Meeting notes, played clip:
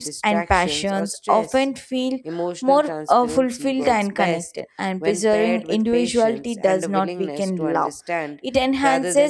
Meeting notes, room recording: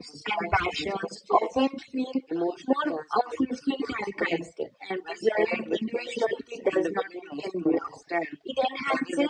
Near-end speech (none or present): none